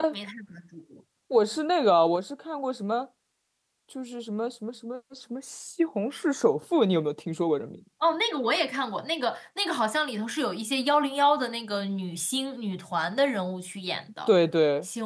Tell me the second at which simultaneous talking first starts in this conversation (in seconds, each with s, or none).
none